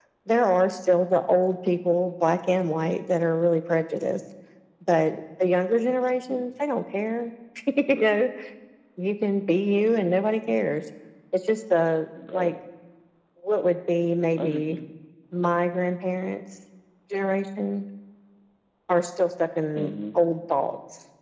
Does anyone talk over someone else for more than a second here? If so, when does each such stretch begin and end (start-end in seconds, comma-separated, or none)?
none